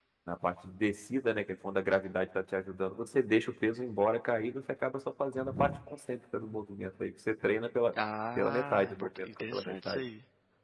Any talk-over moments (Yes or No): Yes